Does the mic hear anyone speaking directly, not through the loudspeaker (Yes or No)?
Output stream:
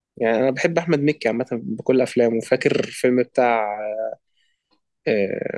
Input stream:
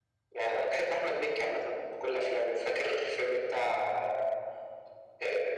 No